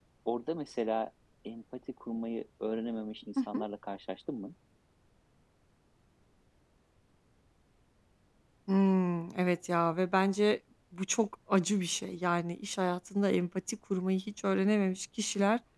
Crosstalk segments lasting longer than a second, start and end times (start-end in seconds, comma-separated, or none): none